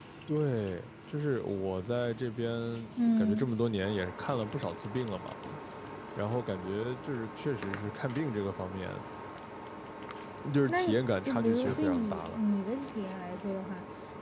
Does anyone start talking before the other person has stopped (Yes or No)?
Yes